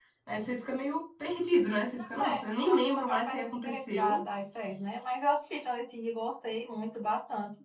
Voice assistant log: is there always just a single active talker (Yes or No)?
No